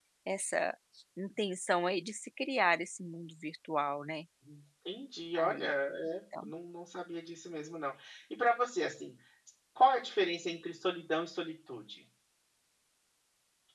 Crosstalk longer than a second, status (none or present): none